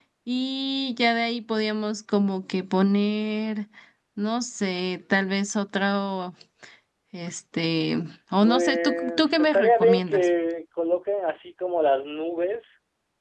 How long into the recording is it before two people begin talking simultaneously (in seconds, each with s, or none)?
8.4 s